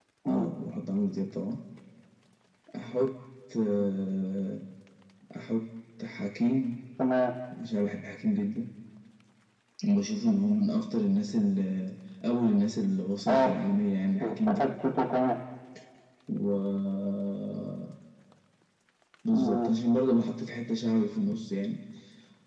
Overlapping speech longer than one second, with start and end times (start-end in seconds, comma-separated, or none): none